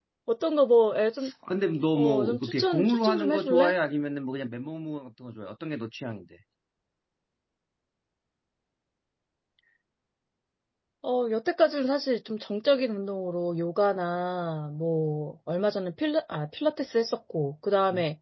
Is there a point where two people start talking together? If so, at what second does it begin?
1.9 s

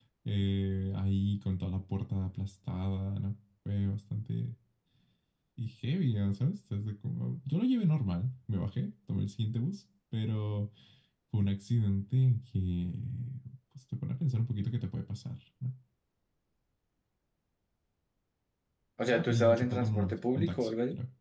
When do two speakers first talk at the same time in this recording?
19.1 s

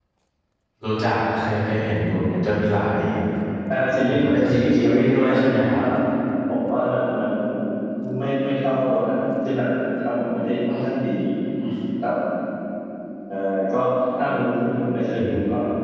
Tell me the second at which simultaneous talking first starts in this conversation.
4.1 s

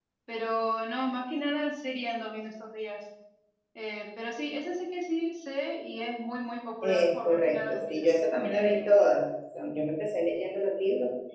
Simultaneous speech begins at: 6.8 s

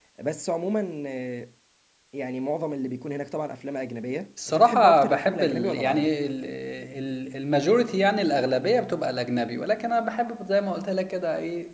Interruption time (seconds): 4.4 s

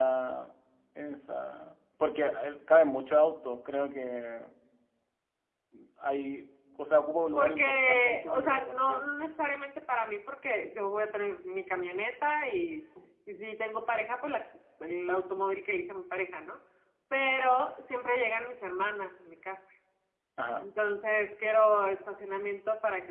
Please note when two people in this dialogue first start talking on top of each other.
7.3 s

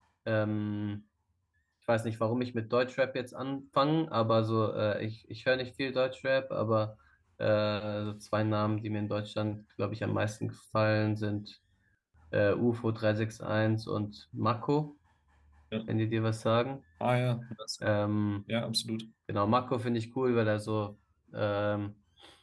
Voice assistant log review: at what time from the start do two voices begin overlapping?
none

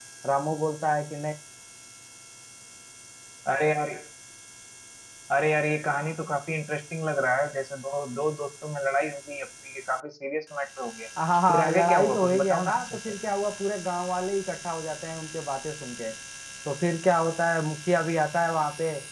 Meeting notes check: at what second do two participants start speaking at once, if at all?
11.5 s

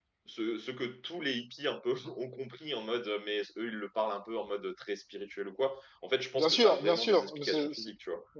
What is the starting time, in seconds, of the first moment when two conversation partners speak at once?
6.3 s

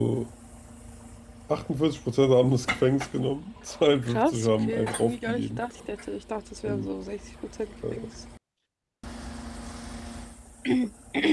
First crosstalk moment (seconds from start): 4.1 s

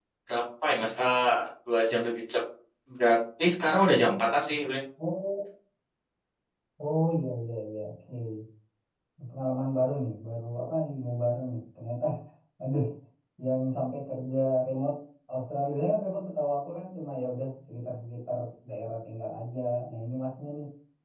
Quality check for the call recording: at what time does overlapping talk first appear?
none

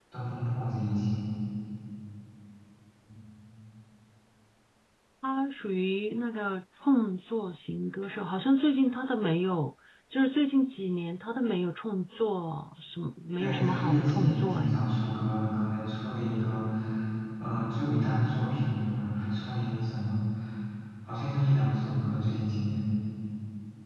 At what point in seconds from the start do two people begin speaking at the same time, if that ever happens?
13.4 s

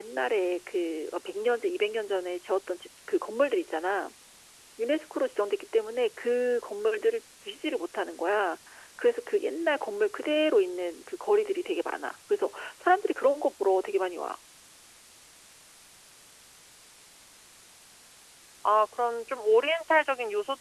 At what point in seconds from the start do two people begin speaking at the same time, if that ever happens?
none

